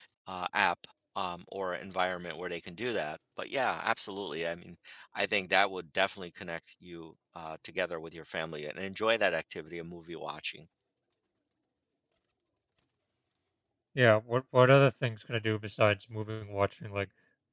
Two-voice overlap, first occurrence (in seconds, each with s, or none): none